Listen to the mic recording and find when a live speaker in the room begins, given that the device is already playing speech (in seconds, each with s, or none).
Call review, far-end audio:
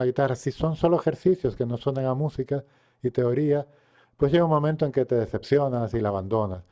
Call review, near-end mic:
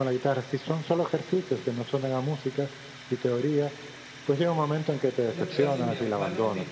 5.3 s